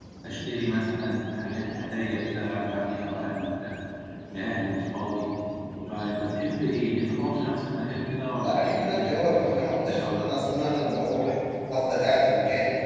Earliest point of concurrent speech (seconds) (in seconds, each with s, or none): 8.4 s